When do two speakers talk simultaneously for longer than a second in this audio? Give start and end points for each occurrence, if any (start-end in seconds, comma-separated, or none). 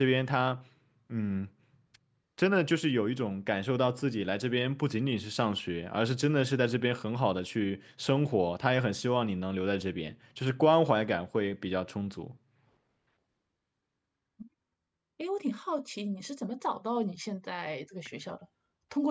none